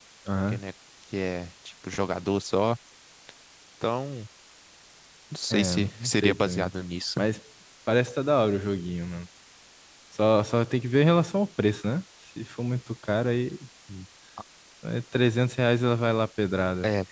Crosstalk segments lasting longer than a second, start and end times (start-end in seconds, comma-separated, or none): 5.5-6.7